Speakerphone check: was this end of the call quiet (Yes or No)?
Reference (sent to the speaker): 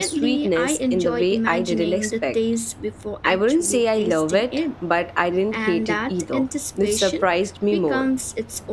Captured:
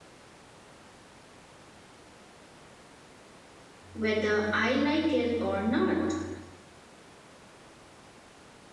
No